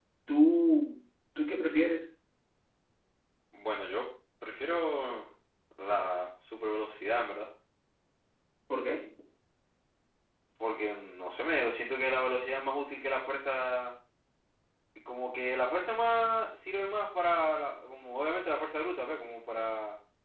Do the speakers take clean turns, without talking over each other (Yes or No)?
Yes